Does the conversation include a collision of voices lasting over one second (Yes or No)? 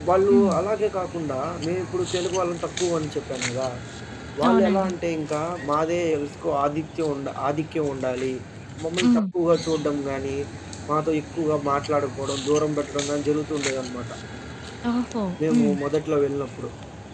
No